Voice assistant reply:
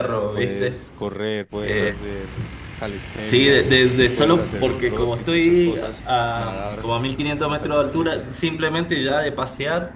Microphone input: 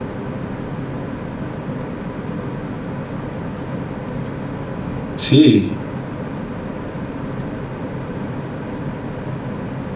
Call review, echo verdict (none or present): none